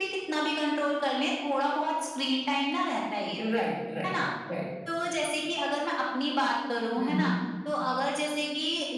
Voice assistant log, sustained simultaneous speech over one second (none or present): none